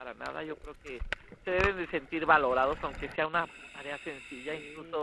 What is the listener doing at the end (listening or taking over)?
listening